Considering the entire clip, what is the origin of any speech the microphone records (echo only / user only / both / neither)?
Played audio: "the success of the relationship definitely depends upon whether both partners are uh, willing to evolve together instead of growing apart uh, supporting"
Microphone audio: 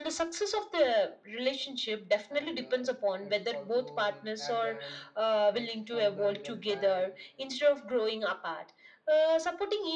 both